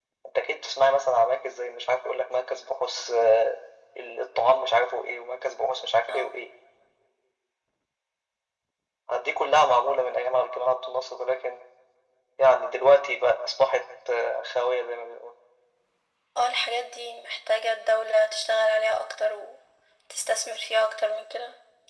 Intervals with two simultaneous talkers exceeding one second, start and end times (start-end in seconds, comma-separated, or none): none